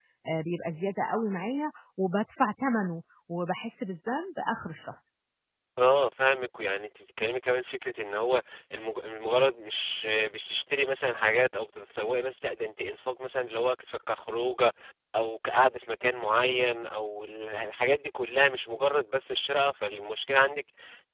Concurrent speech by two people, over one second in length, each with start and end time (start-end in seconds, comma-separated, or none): none